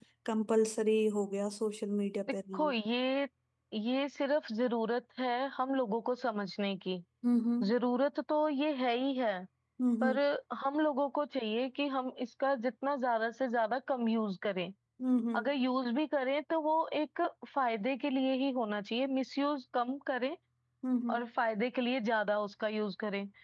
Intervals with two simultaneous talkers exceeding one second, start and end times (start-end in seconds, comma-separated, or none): none